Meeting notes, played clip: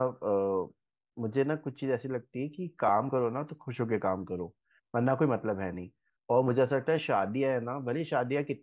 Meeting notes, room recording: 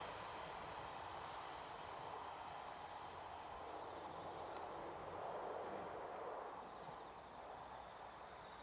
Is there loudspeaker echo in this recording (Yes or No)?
No